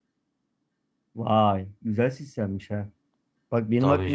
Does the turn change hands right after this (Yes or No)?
No